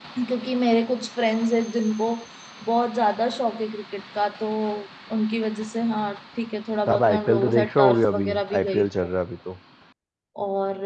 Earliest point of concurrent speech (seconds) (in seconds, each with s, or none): 6.9 s